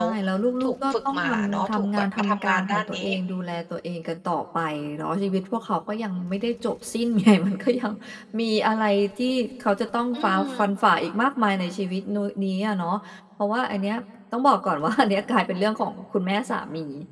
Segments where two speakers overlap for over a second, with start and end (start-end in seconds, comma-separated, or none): 0.6-3.1